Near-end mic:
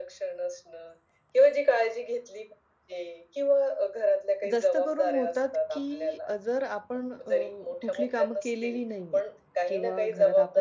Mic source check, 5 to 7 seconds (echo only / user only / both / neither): both